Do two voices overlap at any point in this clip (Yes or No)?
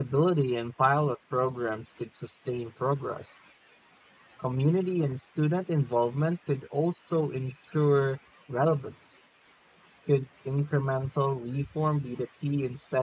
No